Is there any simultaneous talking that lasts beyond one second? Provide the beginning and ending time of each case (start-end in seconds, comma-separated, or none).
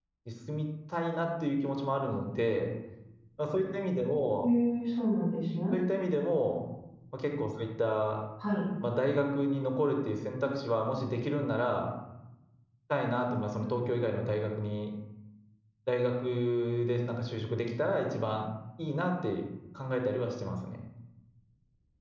none